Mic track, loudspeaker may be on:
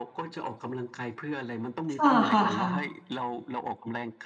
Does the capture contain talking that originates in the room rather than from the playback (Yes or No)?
Yes